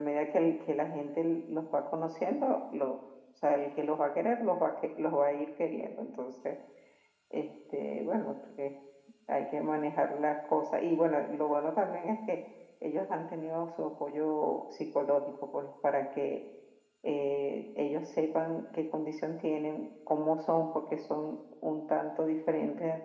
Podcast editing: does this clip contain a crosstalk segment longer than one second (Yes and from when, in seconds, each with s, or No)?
No